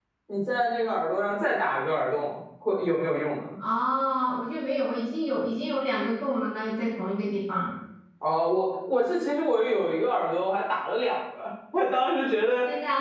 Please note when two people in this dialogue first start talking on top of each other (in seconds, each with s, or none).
none